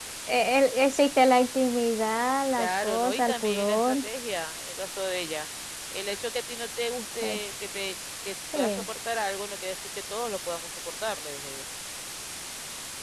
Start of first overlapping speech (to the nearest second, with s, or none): 3 s